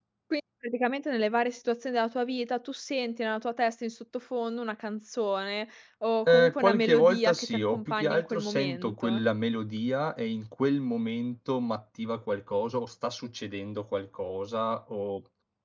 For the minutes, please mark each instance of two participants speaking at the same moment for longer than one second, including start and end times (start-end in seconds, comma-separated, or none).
6.3-9.2